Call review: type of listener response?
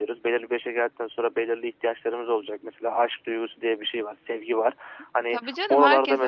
taking over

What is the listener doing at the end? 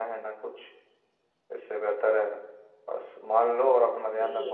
listening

